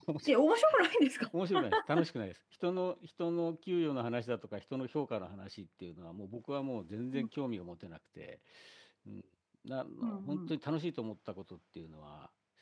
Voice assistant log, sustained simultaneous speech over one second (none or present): none